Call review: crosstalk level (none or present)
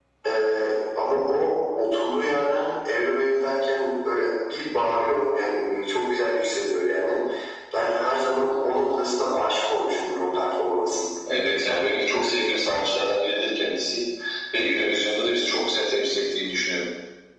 none